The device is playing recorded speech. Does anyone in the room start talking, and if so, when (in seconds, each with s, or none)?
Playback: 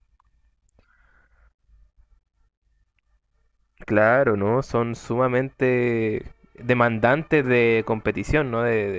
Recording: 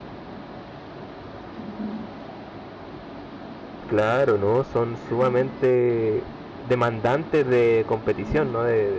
none